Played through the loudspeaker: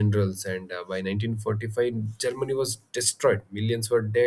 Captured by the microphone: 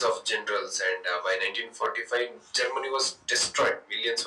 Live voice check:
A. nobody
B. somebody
A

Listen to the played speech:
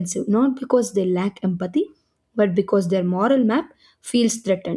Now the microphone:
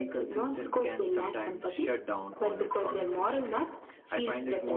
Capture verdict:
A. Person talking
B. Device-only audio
A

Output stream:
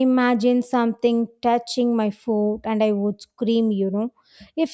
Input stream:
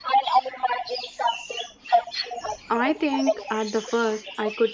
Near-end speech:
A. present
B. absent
A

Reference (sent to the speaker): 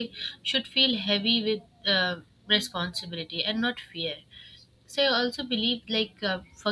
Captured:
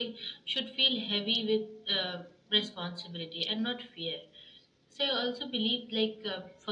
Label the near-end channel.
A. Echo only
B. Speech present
A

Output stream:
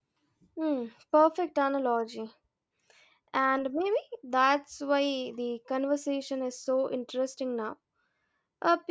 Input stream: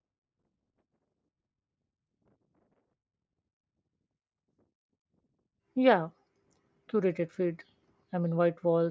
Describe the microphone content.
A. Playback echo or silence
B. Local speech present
B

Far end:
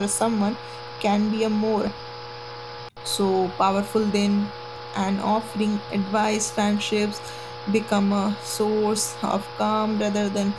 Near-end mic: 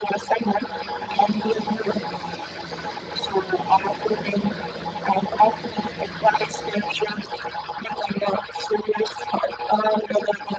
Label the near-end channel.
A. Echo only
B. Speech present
A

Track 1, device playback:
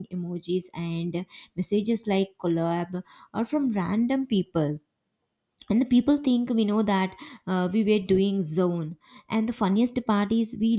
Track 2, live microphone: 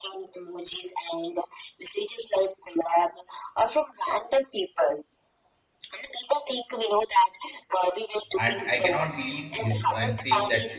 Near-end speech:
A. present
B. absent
A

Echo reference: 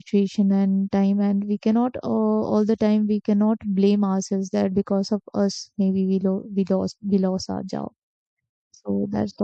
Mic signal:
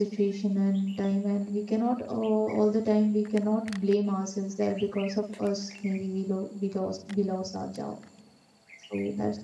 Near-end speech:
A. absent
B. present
A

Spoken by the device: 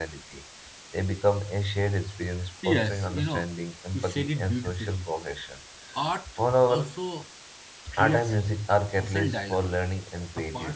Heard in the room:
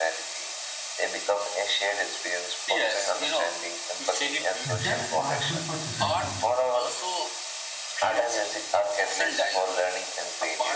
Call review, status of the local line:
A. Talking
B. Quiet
A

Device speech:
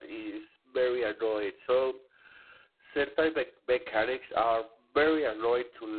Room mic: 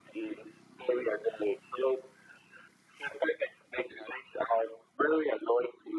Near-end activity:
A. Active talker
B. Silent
B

